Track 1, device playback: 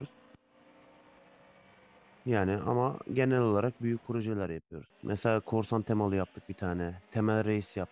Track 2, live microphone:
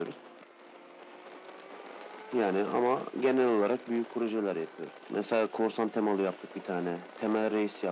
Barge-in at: none

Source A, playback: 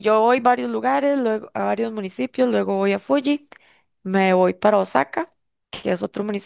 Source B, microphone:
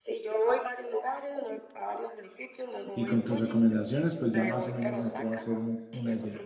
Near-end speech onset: 3 s

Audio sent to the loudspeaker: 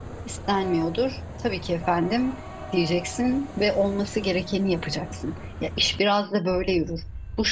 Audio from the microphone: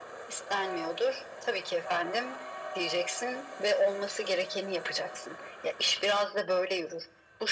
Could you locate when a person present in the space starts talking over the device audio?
none

